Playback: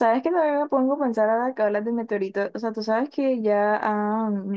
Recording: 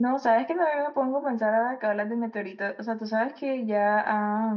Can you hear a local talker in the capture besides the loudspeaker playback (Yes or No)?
No